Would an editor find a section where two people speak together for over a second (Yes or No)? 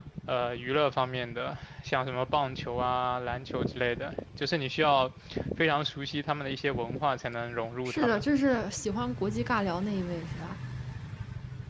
No